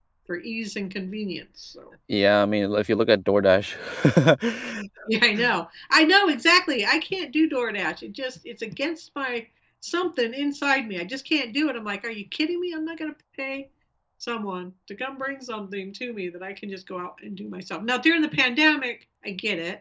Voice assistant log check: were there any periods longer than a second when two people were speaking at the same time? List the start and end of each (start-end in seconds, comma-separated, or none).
none